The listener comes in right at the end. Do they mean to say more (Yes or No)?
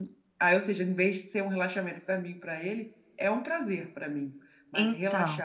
No